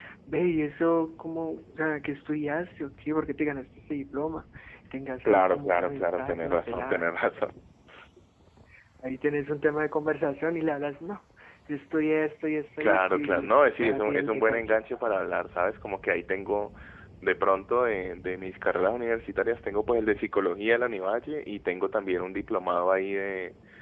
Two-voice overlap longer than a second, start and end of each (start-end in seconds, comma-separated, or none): 5.2-7.1, 12.8-14.6